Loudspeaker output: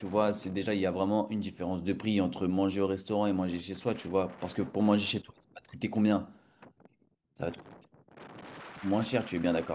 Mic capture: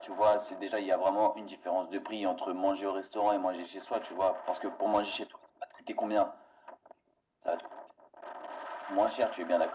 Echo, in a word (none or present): present